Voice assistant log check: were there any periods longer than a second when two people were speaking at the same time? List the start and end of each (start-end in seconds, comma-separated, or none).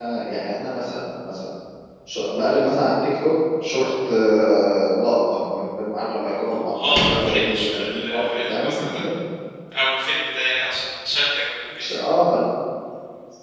6.8-8.8